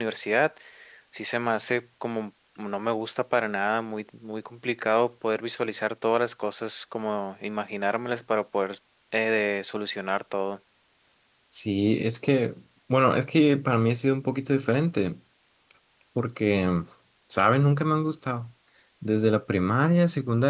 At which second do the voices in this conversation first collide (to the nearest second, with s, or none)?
none